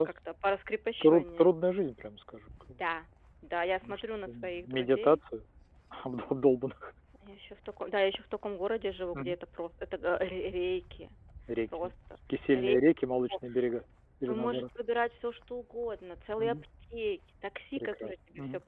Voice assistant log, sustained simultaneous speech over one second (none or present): present